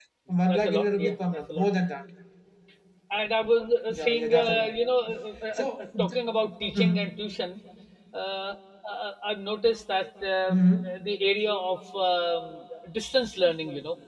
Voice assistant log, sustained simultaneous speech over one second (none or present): present